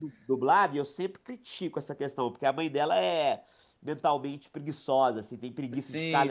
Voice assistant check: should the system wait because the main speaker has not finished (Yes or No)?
Yes